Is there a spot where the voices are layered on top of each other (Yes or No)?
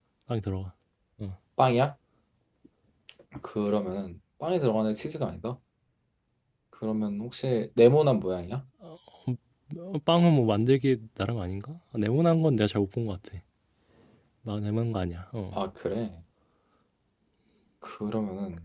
No